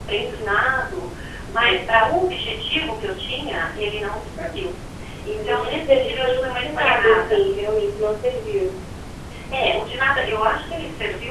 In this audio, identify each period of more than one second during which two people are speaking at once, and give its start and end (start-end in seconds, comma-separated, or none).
5.4-7.4